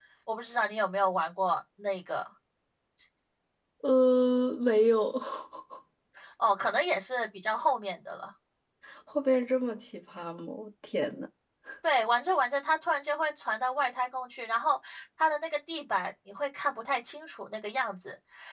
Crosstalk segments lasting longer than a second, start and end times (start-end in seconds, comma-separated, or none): none